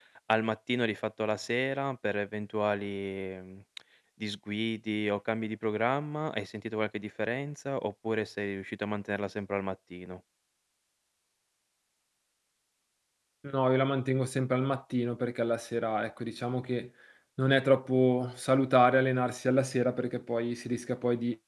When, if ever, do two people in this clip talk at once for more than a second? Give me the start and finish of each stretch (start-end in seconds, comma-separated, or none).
none